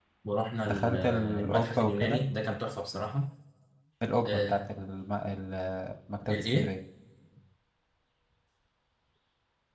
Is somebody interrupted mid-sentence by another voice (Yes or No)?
Yes